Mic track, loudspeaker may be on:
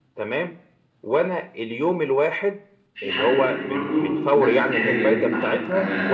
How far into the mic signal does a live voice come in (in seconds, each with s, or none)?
2.9 s